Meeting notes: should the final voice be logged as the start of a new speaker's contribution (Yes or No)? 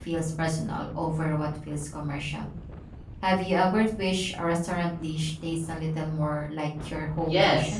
Yes